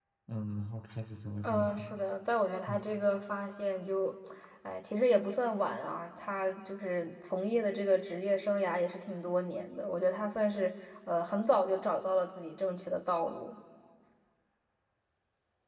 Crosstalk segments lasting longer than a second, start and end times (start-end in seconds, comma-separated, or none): none